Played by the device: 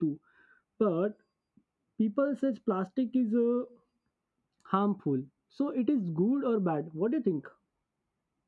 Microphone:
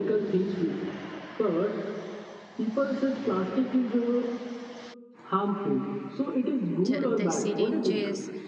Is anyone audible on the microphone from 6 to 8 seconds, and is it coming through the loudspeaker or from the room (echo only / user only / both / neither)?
both